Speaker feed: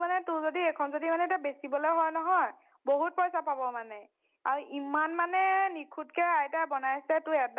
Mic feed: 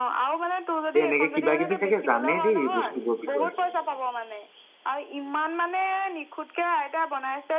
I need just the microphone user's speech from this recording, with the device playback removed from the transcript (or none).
এ এনেকে কিবা কিবি চাগে জানে দেই এই বস্তুবোৰৰ বিষয়ে।